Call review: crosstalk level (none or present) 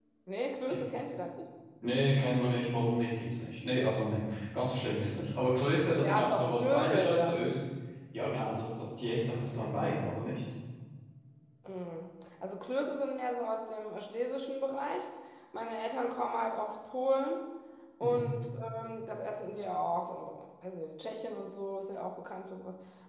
present